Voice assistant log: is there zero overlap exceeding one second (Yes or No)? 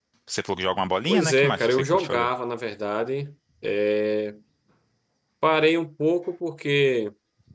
No